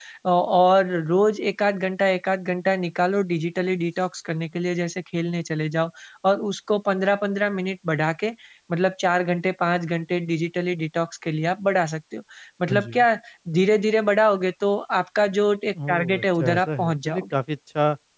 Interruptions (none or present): present